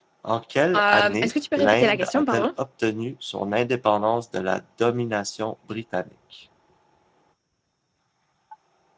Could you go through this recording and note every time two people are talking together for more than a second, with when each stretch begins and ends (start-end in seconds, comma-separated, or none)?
0.7-2.5